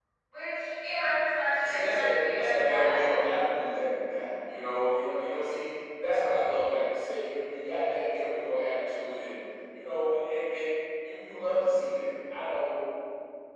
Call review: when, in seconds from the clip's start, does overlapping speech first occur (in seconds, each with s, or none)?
1.6 s